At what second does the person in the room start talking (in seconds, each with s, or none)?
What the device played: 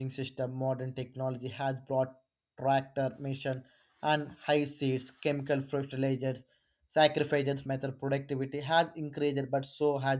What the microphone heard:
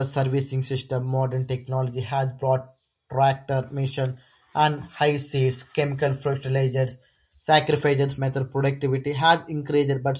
none